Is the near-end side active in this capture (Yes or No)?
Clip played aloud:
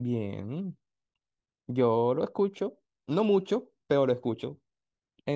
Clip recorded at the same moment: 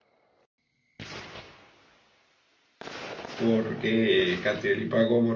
Yes